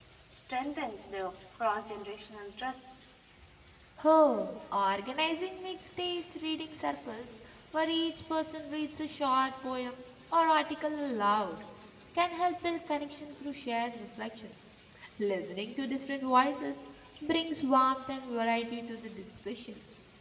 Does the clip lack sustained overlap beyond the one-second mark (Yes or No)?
Yes